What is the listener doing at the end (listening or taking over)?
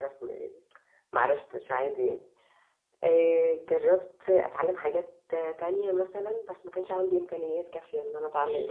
taking over